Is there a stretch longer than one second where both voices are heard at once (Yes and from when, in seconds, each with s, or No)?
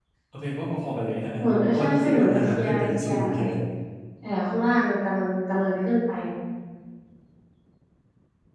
Yes, from 1.4 s